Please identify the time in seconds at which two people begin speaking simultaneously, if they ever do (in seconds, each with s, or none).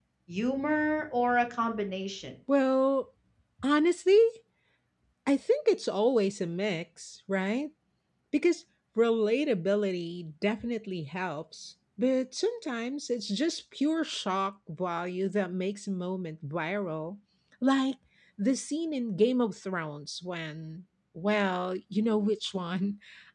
none